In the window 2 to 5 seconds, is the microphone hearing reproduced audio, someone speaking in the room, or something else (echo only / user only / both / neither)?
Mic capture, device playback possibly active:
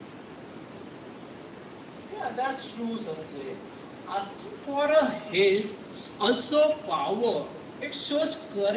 user only